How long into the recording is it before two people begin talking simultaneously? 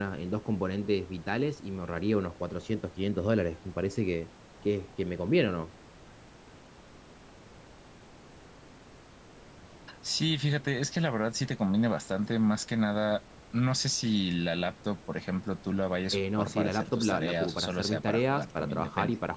16.1 s

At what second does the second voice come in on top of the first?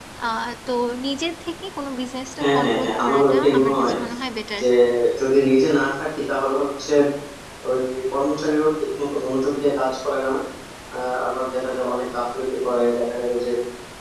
2.4 s

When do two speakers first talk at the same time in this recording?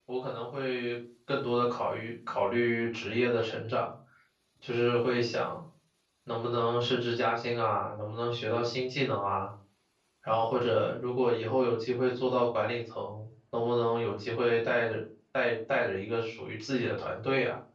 none

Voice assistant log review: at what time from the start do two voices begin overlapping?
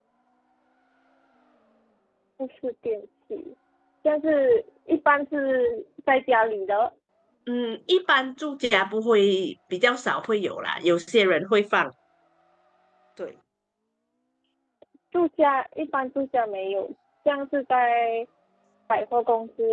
none

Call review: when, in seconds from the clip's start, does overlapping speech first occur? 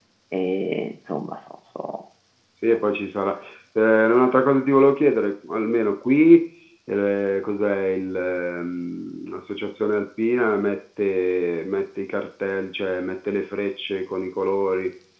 none

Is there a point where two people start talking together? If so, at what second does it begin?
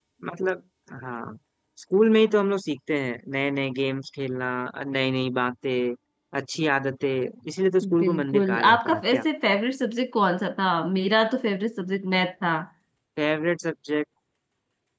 8.0 s

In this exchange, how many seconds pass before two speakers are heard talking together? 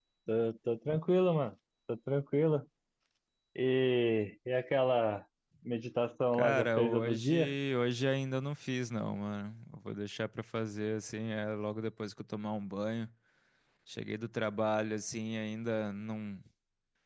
6.3 s

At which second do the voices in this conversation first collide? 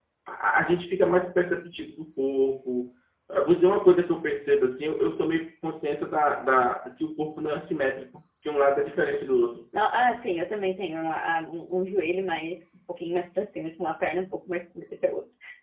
none

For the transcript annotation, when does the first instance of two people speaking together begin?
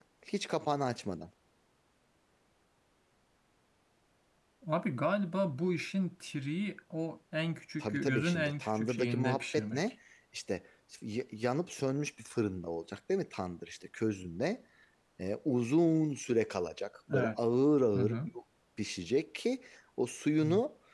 7.8 s

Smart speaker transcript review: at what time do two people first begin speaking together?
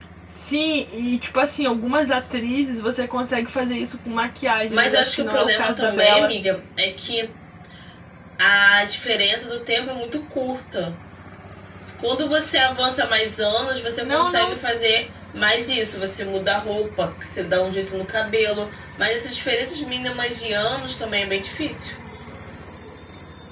4.7 s

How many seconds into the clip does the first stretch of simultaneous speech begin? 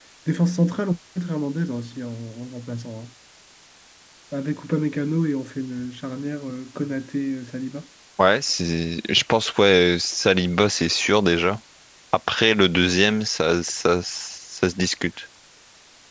none

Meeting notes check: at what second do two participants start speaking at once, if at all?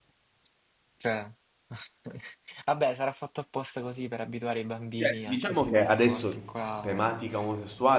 5.0 s

